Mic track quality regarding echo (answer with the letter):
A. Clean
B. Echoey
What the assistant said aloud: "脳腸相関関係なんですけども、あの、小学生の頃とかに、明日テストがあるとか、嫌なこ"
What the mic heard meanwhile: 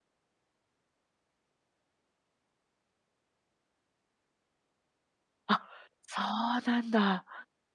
A